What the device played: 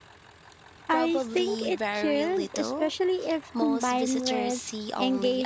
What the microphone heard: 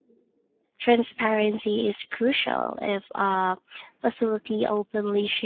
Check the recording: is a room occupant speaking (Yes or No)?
Yes